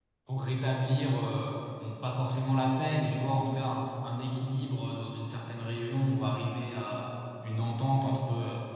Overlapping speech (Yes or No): No